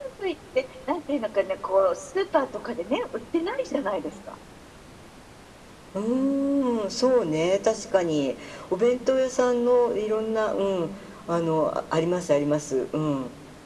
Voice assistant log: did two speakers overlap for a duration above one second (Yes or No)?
No